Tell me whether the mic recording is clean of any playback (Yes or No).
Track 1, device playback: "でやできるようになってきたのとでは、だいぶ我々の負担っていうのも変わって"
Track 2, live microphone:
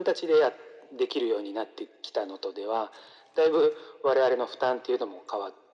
No